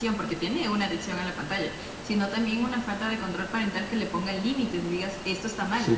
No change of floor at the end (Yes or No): Yes